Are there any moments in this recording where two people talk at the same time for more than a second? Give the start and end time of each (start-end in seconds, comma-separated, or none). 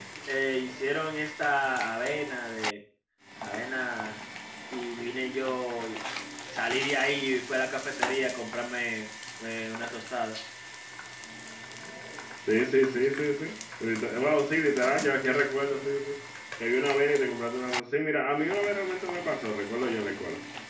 none